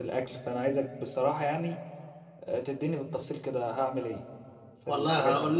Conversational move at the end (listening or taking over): taking over